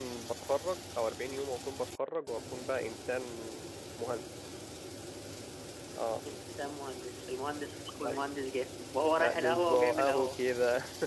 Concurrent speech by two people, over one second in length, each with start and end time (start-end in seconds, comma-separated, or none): 9.2-10.4